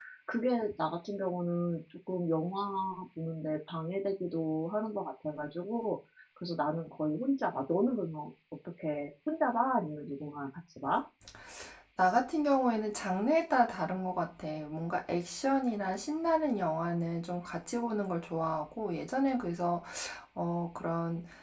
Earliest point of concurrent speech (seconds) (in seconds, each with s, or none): none